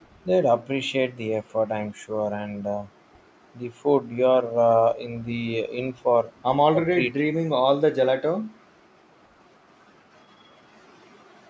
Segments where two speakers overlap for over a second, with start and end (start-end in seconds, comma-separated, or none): none